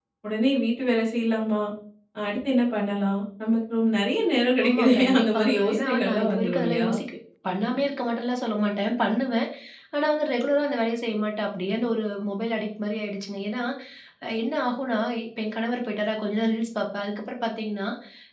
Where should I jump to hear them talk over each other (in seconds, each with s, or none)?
4.6 s